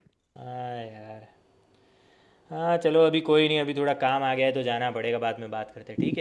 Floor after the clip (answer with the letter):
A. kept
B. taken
B